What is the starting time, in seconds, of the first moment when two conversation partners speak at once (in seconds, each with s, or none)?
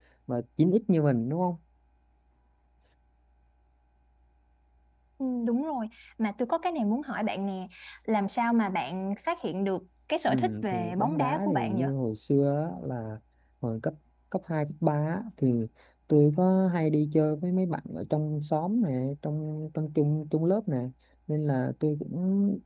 10.3 s